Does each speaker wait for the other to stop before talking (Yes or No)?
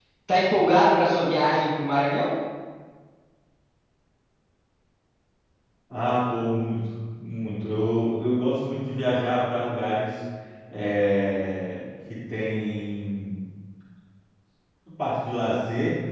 Yes